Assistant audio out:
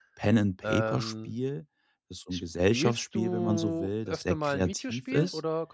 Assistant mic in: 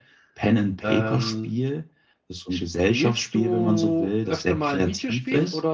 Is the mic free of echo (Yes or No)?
No